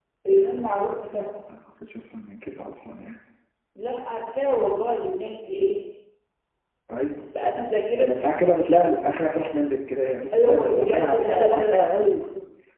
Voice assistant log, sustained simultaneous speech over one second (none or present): present